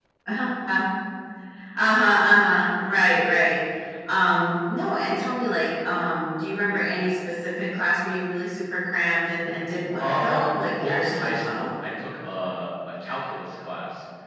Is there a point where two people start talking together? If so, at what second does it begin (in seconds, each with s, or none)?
10.0 s